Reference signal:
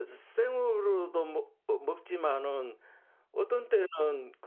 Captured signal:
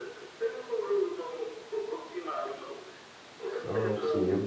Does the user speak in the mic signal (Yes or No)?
Yes